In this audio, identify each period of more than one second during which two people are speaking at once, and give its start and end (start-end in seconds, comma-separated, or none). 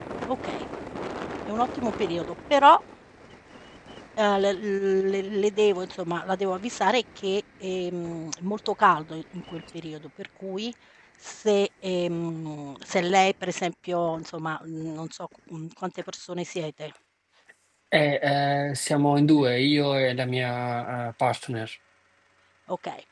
none